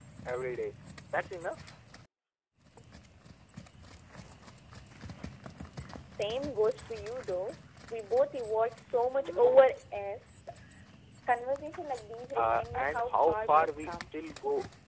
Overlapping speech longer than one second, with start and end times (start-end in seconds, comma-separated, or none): 12.3-13.9